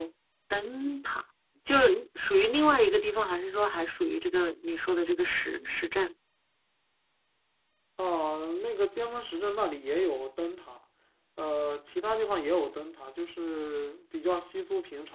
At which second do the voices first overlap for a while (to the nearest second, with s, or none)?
none